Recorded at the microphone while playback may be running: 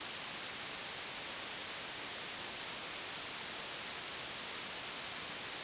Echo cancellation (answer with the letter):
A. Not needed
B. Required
A